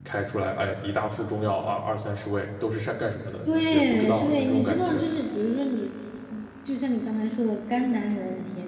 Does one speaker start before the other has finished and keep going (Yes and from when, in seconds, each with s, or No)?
Yes, from 3.5 s